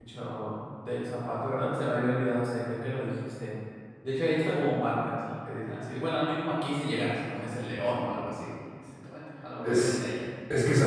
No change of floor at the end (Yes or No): No